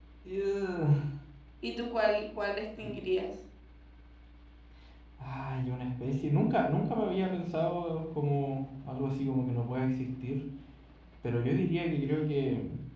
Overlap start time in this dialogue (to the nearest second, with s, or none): none